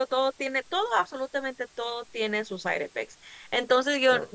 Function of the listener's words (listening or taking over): listening